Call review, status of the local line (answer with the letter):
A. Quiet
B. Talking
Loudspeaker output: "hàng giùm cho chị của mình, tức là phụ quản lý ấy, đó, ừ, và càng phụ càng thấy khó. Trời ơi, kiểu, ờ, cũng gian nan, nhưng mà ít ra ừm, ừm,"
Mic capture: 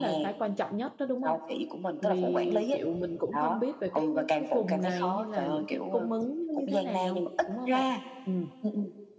B